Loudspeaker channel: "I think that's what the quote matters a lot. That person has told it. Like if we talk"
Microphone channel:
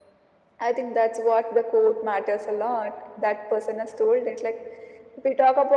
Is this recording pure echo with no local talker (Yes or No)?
Yes